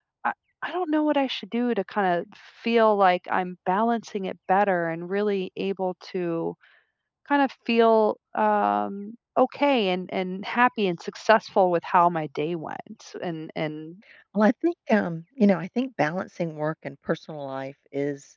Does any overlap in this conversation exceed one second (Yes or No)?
No